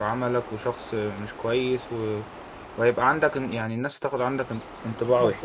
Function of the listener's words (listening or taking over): taking over